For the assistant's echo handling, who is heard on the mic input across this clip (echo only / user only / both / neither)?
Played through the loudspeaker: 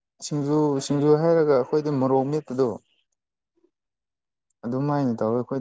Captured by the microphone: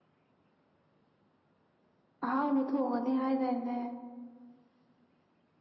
user only